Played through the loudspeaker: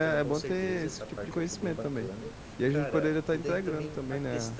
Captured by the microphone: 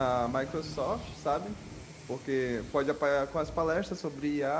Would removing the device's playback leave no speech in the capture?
No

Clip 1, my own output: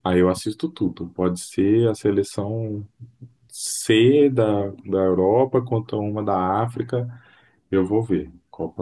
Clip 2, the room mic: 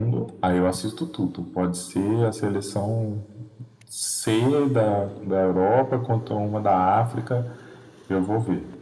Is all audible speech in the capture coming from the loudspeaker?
Yes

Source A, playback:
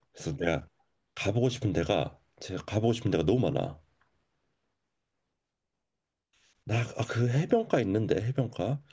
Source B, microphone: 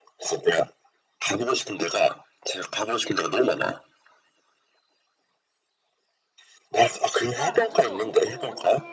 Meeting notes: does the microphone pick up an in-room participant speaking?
Yes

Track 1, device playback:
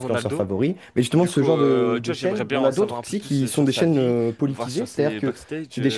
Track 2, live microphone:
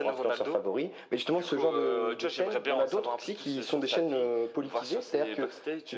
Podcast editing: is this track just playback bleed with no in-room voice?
Yes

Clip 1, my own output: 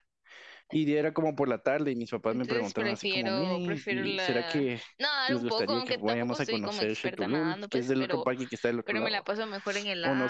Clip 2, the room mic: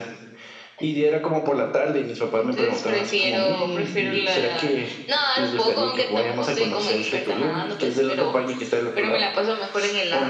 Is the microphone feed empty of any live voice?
Yes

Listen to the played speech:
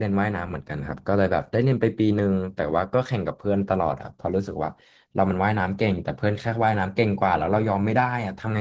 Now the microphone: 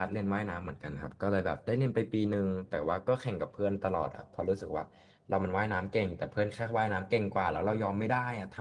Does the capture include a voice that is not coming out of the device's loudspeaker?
No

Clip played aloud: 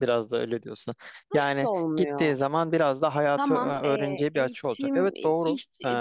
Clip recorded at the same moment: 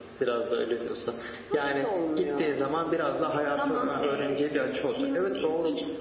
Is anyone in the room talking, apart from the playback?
No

